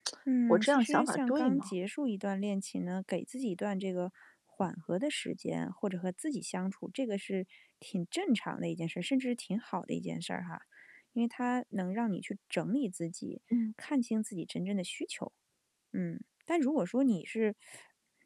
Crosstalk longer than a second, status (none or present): present